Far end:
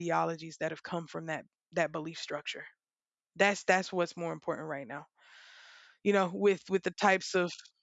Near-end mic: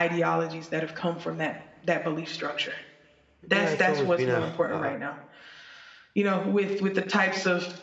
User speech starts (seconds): 3.5 s

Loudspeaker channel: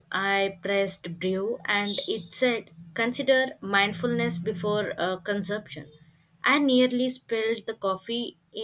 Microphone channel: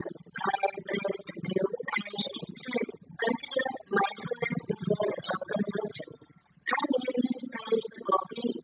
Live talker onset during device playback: none

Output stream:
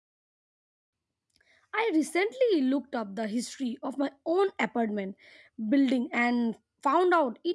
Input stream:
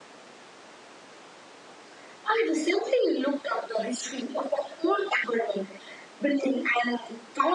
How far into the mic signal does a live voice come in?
none

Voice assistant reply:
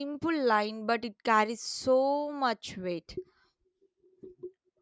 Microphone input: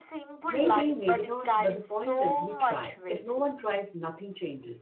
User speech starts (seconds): 0.5 s

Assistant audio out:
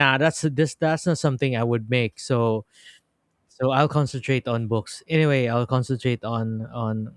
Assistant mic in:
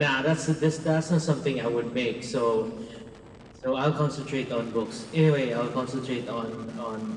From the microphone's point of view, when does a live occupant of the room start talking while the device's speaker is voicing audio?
none

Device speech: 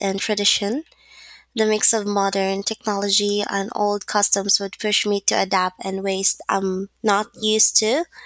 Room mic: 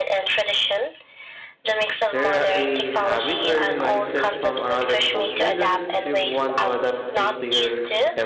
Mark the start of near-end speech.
1.9 s

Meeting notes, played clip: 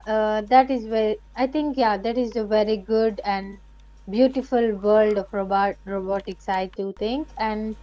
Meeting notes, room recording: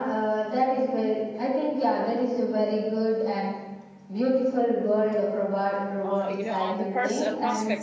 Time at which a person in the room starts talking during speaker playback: 6.0 s

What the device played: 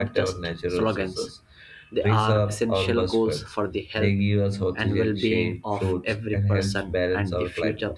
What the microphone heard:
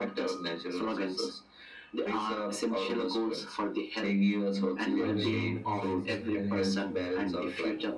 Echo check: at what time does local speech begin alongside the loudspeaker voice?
5.0 s

